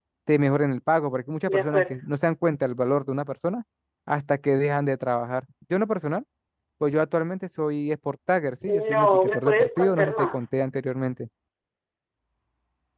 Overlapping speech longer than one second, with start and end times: 8.7-10.5

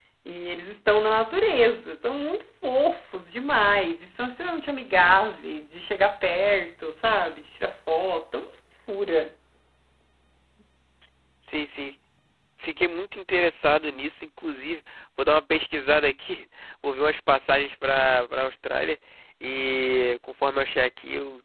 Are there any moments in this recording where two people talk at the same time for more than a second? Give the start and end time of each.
none

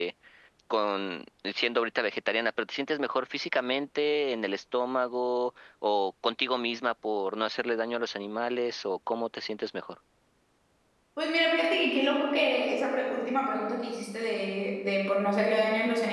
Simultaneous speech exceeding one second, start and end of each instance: none

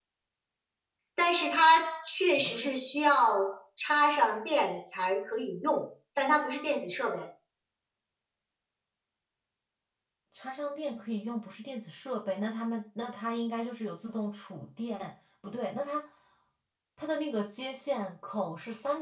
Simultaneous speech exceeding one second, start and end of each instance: none

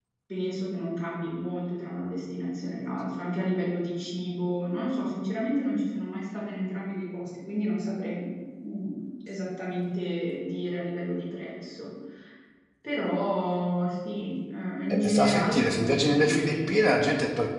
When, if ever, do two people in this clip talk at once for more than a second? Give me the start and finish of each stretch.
14.9-16.7

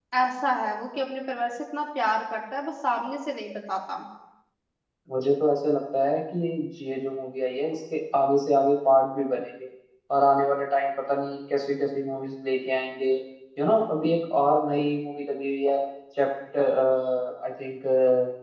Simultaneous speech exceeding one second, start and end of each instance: none

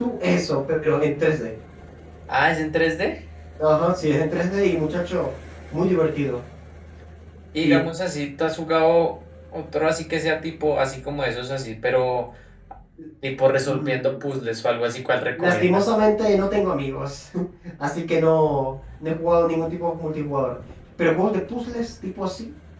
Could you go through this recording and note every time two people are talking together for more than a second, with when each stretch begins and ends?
none

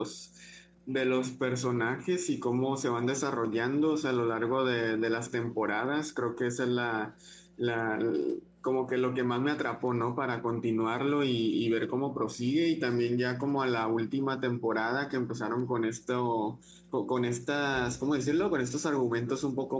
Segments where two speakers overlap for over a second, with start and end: none

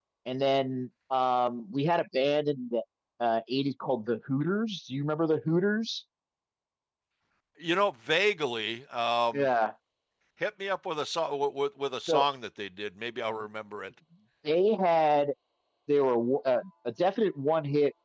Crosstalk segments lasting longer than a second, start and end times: none

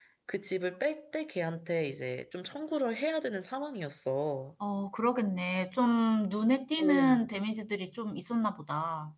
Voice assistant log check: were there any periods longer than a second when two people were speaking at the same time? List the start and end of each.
none

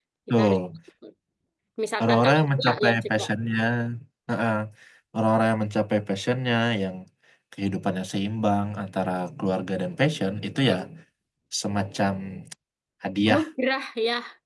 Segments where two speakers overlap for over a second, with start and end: 2.0-3.2

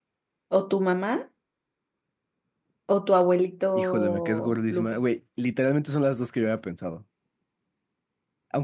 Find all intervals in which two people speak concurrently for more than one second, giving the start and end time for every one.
3.8-5.0

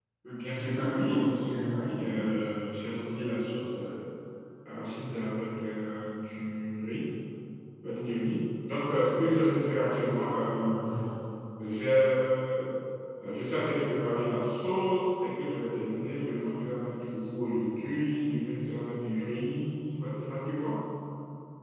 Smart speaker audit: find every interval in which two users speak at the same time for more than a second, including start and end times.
0.5-2.2

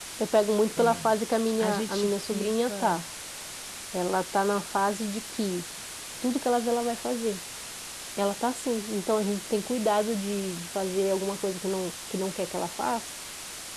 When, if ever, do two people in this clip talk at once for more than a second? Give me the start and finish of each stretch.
1.6-3.0

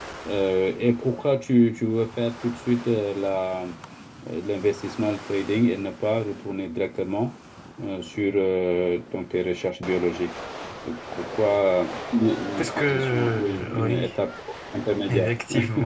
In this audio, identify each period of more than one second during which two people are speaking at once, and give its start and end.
12.6-14.1

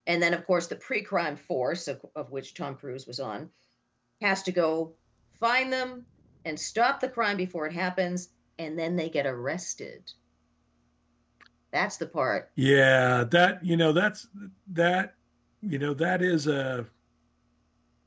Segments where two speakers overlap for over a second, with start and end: none

